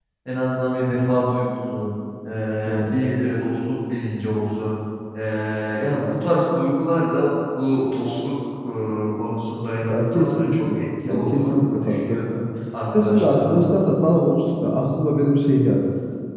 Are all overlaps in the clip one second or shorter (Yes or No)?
No